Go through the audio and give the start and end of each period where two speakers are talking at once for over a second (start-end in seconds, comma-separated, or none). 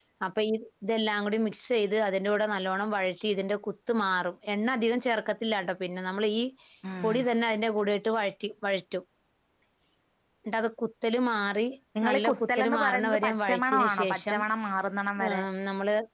12.1-14.4